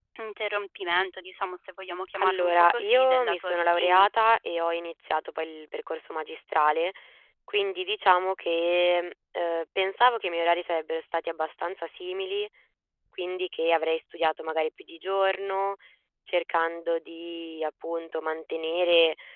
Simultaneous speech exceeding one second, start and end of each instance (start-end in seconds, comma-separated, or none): 2.2-4.1